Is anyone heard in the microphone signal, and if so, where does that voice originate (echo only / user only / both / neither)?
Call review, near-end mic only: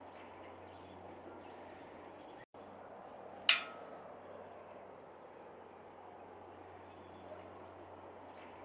neither